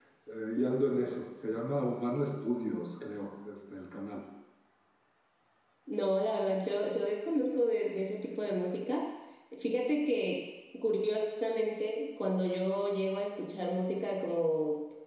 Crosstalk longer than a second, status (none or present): none